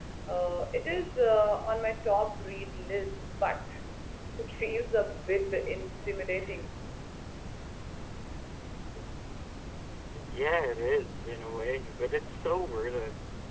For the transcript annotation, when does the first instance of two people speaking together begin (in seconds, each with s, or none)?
none